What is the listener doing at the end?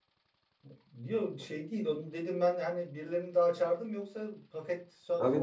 taking over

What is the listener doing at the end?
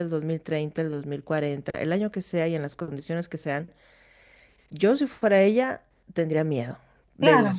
taking over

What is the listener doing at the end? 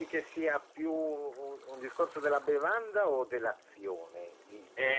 taking over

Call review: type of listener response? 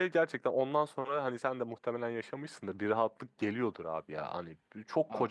listening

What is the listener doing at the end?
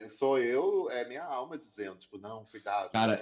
taking over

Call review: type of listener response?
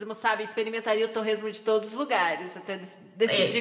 taking over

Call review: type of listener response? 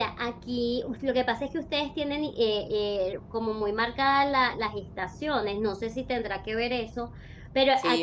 taking over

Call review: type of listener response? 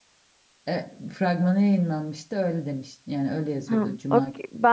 taking over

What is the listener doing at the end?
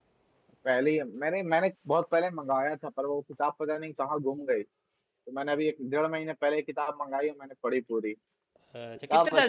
taking over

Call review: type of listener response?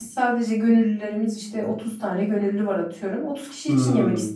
taking over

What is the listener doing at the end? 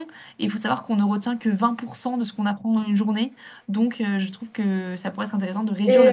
taking over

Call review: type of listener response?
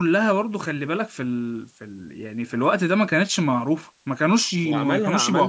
taking over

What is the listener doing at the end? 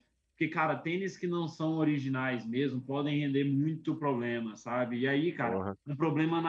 listening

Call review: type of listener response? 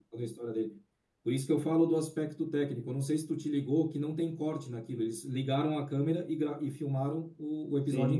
taking over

